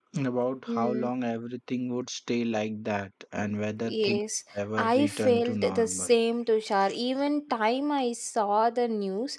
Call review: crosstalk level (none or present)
present